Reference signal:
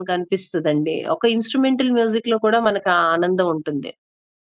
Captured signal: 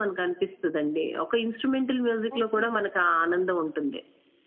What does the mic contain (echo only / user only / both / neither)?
both